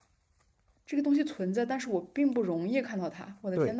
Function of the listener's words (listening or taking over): taking over